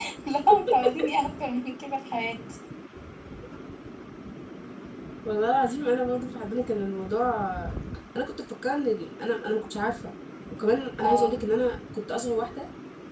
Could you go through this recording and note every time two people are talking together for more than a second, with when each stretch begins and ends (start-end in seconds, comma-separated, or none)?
none